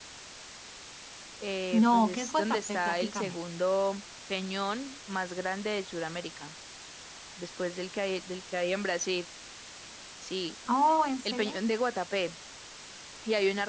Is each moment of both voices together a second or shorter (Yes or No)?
No